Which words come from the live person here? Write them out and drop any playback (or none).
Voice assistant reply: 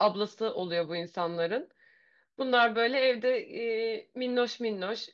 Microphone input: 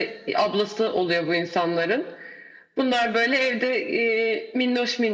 none